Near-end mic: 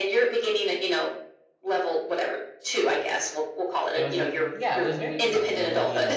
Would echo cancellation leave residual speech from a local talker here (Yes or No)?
Yes